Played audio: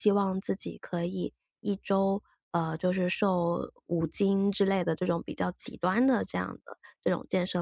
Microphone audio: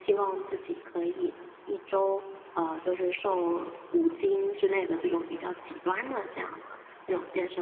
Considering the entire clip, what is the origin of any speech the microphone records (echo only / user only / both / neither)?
echo only